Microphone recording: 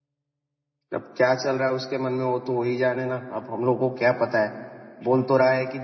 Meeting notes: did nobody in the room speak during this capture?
No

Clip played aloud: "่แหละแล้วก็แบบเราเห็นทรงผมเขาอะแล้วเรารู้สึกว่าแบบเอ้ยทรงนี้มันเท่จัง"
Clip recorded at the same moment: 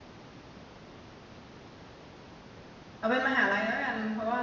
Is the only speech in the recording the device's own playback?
No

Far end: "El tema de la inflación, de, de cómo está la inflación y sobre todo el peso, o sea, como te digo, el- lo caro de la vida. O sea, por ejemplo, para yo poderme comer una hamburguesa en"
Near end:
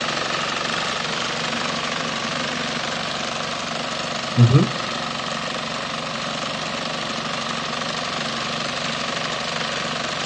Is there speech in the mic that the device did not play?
Yes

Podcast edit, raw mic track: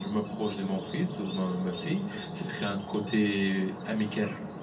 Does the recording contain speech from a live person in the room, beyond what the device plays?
No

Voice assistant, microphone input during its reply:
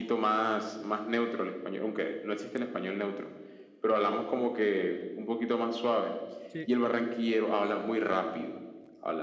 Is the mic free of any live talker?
No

